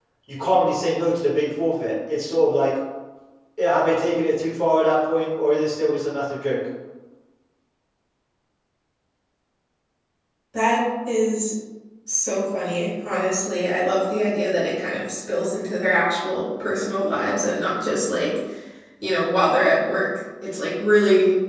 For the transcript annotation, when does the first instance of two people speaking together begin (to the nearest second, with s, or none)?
none